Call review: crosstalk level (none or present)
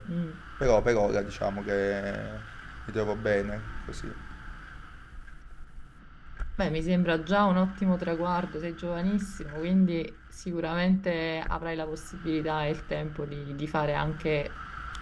none